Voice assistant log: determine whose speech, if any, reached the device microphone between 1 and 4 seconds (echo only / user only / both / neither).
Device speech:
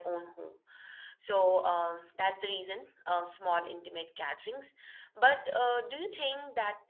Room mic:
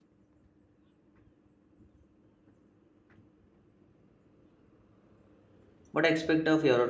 neither